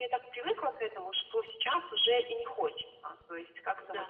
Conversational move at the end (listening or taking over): listening